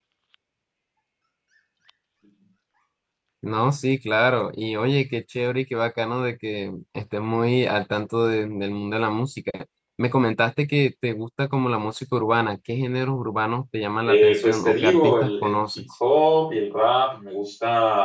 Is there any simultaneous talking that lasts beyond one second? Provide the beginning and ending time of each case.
14.0-15.8

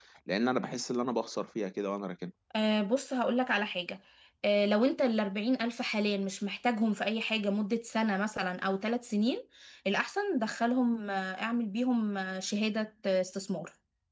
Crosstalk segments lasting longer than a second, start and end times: none

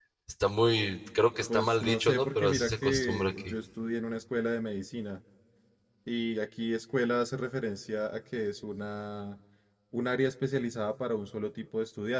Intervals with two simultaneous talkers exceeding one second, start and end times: 1.5-3.5

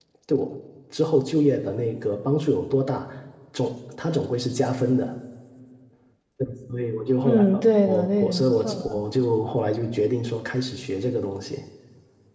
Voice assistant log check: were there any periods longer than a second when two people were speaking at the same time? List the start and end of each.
7.2-9.0

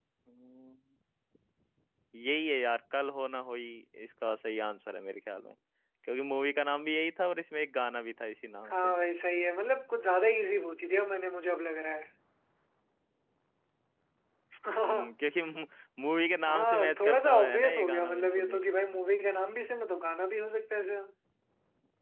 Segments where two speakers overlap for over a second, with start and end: 16.5-18.6

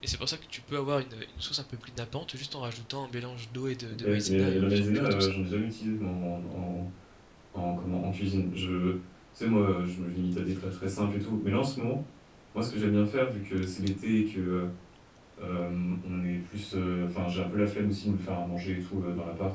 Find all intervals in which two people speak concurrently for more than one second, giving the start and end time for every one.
4.0-5.3

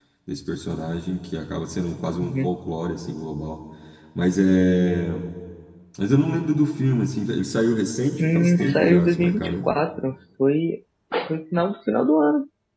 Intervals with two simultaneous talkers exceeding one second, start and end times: 8.2-9.6

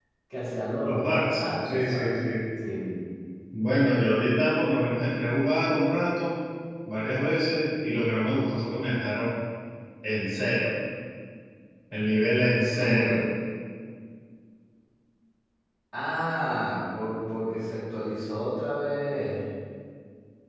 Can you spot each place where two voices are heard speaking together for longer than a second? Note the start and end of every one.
0.8-2.1

